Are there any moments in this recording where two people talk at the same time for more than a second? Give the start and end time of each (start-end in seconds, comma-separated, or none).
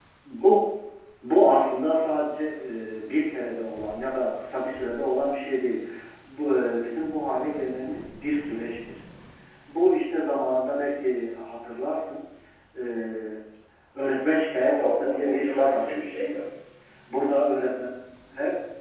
14.6-16.2